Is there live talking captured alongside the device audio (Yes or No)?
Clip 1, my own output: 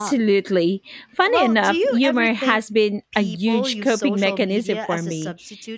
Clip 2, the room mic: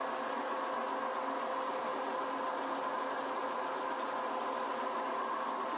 No